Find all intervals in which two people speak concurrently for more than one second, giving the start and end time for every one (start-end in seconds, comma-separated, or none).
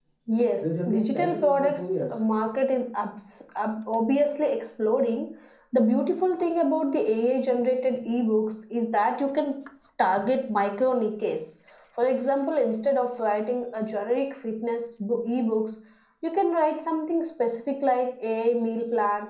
0.6-2.2